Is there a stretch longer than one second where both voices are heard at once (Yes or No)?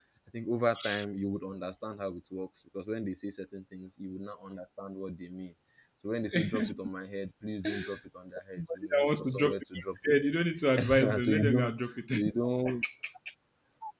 Yes